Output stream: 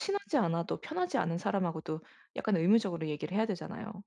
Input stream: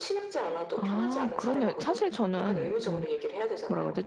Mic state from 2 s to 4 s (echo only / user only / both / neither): both